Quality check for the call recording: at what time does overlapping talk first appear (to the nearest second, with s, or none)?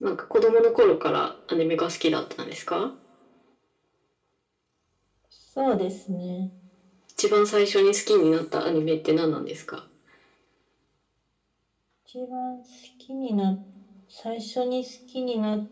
none